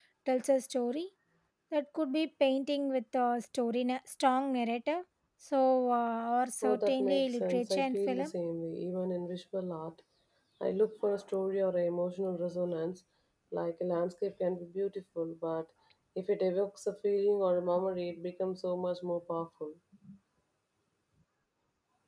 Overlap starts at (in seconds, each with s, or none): 6.6 s